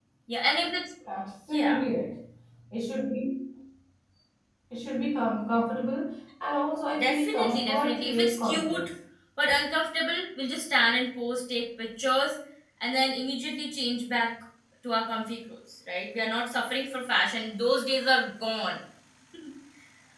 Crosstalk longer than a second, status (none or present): present